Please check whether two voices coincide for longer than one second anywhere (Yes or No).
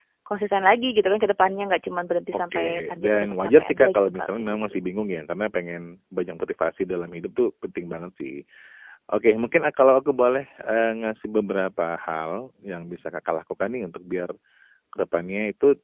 Yes